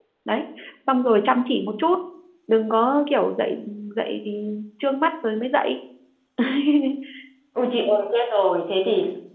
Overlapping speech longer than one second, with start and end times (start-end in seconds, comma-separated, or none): none